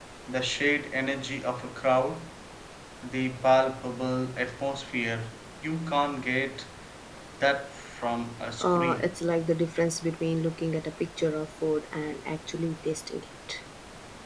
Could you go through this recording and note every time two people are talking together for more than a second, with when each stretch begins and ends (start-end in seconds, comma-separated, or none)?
none